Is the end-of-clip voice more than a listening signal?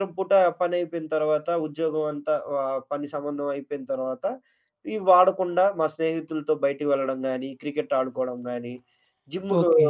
No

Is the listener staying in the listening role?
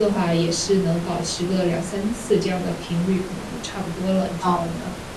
No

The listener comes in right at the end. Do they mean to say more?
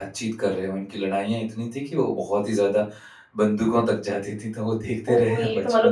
Yes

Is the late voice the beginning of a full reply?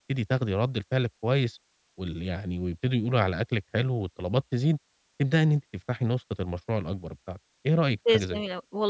Yes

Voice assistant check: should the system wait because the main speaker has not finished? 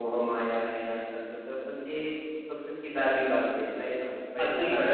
No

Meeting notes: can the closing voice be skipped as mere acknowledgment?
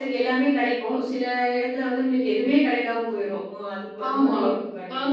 No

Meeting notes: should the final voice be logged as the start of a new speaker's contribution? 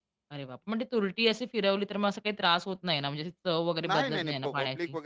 Yes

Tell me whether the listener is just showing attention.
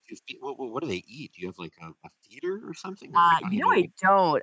No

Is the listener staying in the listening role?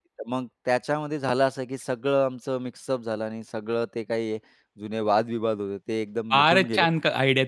No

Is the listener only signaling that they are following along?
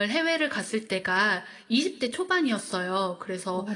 Yes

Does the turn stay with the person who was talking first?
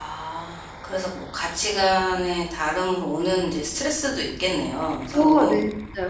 No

